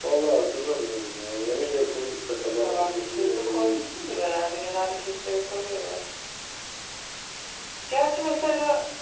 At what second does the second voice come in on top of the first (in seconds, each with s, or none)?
2.6 s